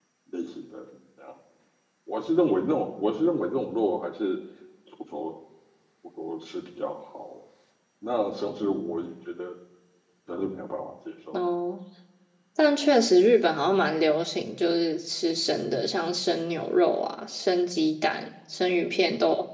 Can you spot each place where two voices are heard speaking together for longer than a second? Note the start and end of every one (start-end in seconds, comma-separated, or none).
none